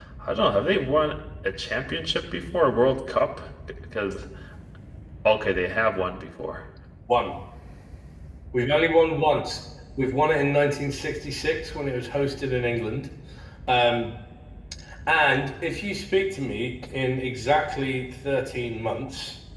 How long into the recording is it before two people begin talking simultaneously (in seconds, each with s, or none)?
none